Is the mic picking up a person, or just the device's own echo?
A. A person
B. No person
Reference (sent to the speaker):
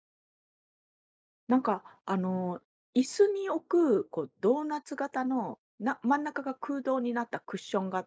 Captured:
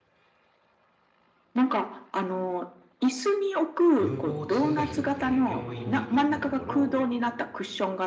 A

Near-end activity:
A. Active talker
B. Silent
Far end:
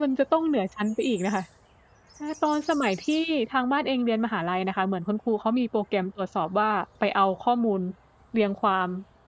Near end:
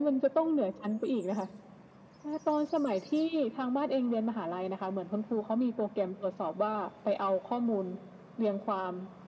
B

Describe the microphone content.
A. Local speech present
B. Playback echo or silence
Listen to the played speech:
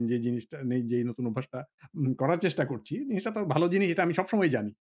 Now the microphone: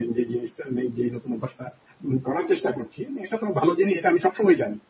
B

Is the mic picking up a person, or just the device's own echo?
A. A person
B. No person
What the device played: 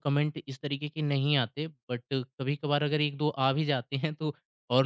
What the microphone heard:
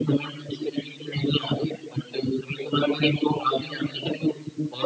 B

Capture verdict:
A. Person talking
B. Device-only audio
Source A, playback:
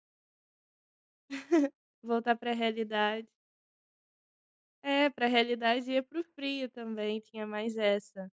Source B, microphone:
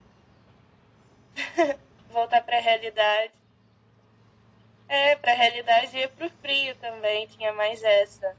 B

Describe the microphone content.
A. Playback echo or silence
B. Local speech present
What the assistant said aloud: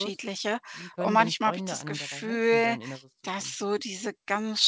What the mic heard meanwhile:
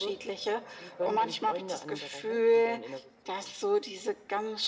A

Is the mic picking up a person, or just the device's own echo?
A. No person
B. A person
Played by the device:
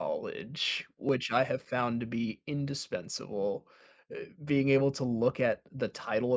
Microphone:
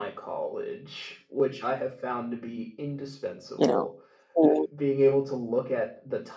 B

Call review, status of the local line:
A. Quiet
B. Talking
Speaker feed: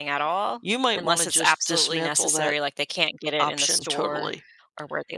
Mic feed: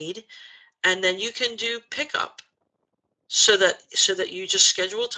B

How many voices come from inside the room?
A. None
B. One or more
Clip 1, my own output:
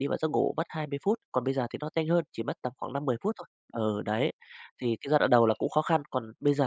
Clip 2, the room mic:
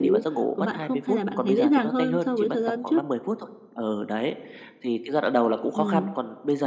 B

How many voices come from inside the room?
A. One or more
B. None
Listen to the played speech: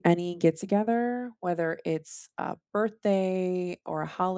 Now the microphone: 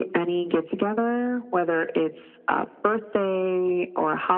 B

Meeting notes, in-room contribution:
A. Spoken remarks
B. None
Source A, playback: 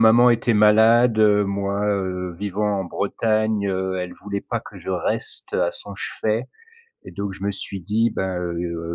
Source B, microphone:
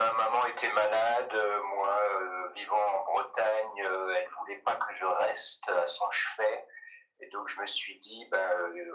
B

